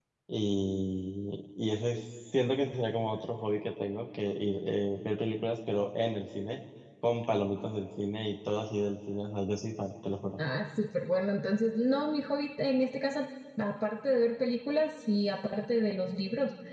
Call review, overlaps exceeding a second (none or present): none